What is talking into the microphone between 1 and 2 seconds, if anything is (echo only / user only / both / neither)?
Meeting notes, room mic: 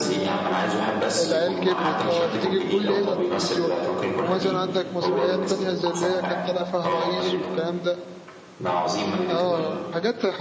both